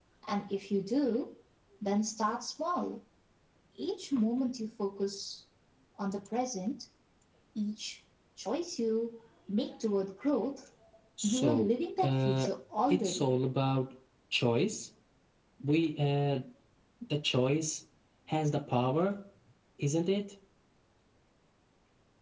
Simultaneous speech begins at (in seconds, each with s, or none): 11.2 s